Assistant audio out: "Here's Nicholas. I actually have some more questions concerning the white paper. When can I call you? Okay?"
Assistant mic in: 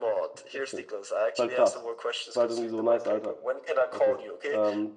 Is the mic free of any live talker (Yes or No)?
No